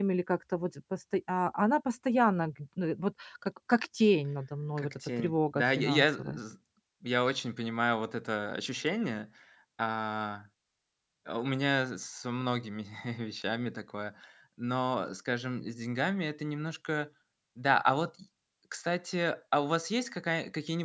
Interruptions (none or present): present